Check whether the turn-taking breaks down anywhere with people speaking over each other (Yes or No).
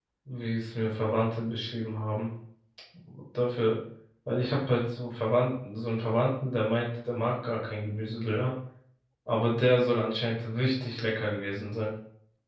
No